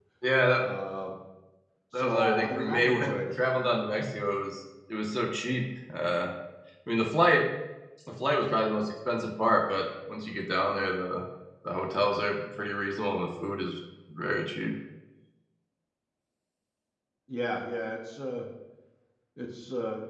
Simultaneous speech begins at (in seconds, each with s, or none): 1.9 s